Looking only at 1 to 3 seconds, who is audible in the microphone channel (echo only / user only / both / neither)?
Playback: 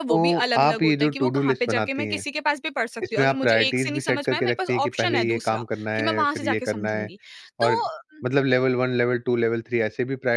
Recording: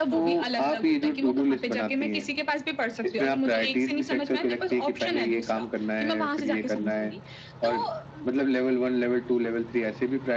echo only